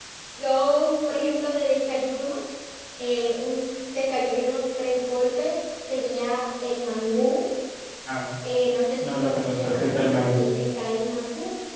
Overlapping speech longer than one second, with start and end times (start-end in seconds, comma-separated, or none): 9.0-10.5